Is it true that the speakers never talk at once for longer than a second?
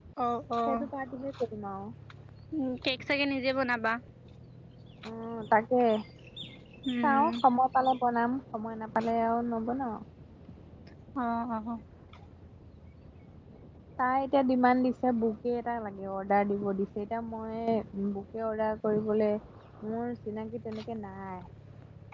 Yes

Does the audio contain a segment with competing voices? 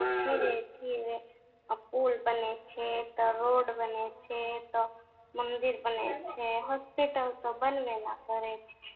No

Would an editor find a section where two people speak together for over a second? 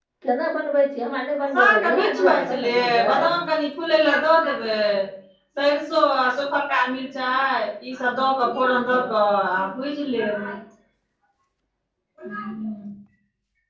Yes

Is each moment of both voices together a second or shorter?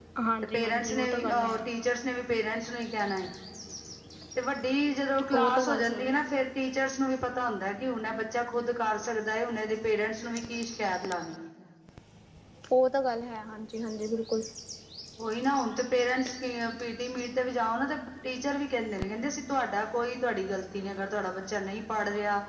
No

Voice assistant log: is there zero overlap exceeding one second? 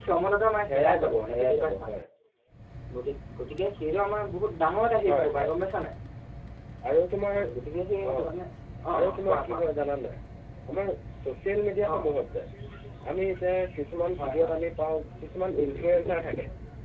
No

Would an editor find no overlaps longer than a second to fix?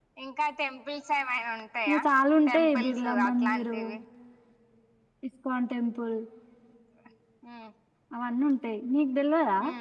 No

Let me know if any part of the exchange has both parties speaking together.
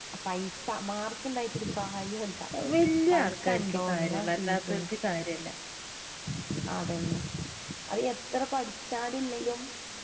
Yes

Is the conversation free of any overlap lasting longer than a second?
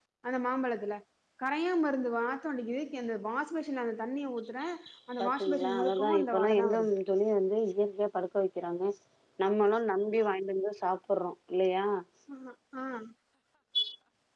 No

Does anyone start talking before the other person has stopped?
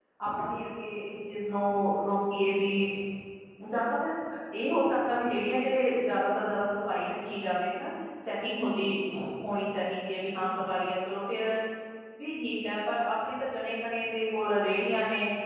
No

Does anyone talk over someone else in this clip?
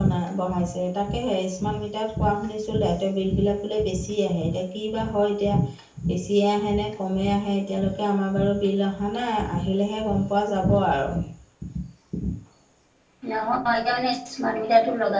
No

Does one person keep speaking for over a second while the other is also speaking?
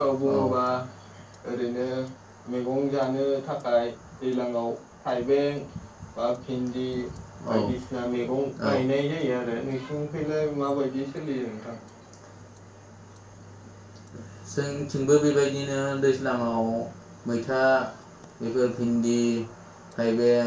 No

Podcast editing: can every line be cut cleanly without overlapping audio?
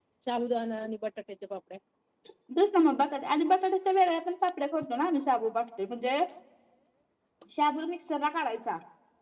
Yes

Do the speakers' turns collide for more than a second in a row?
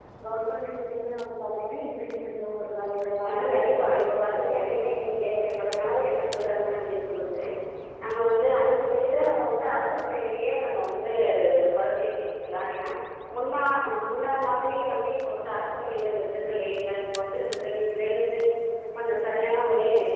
Yes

